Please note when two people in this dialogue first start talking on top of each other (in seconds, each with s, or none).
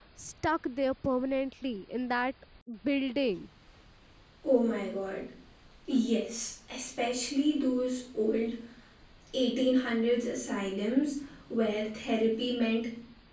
none